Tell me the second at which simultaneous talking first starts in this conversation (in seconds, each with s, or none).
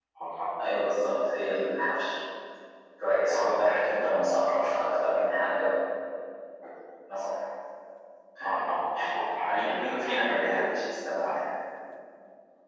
3.3 s